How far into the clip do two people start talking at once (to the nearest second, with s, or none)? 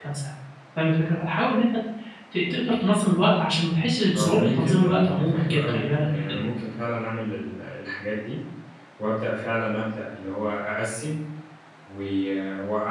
4 s